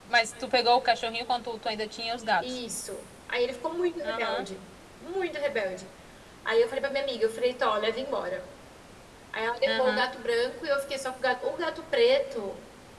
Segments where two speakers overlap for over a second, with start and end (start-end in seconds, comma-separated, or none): none